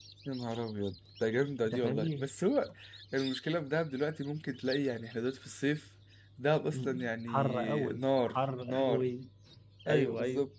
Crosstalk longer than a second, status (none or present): present